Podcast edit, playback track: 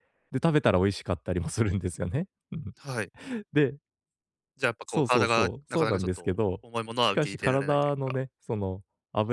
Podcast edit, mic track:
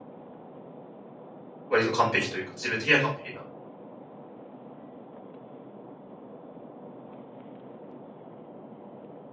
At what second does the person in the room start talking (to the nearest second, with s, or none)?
2 s